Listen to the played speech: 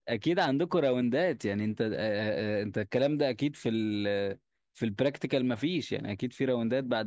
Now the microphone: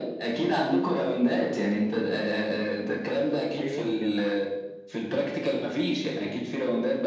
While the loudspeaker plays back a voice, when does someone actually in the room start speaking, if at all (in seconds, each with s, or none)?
3.6 s